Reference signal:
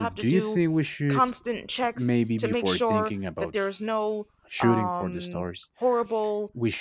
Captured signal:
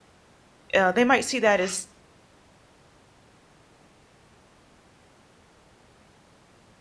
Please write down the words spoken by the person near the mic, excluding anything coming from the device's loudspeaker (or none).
uh, they might see that as